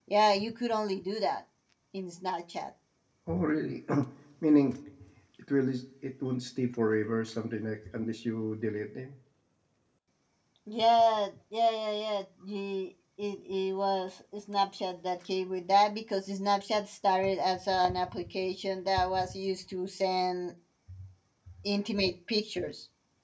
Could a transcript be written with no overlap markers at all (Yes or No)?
Yes